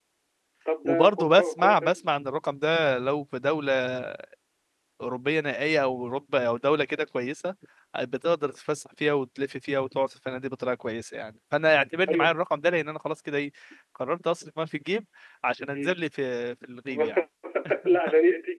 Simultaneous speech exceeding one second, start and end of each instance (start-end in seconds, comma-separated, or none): 0.8-2.0